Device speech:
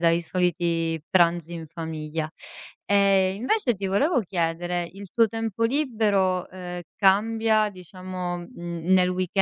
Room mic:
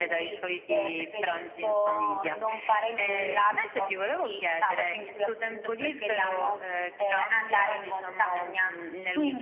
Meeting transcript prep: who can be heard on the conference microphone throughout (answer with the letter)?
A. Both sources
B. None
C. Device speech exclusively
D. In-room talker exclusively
A